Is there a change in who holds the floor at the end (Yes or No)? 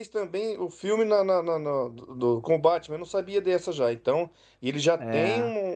No